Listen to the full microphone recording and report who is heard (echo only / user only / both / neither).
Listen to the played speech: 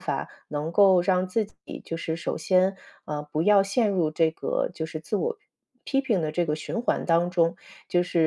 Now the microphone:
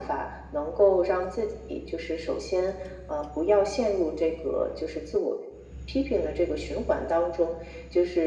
echo only